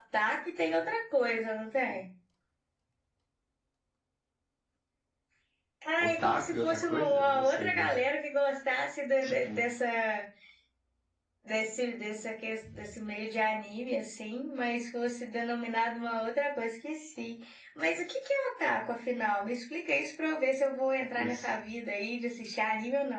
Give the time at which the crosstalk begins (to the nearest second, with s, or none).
6 s